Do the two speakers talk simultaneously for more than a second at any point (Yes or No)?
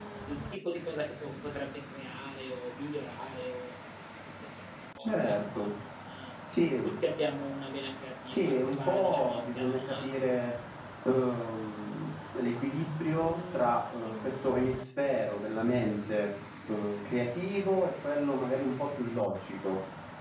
Yes